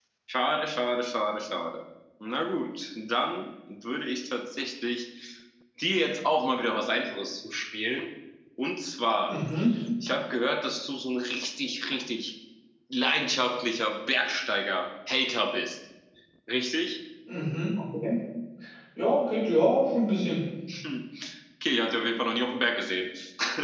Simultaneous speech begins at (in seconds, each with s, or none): none